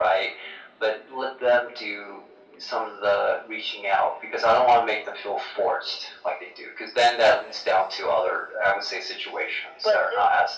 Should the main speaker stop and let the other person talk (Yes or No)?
Yes